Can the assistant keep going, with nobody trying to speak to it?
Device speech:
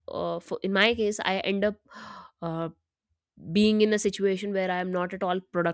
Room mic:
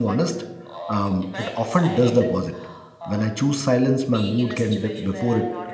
No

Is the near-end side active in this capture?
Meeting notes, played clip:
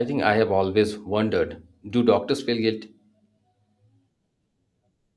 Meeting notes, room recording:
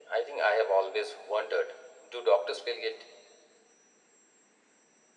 No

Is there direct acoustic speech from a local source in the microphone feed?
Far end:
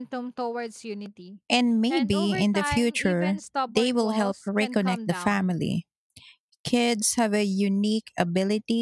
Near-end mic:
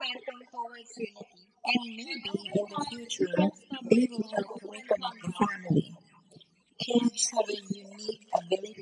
No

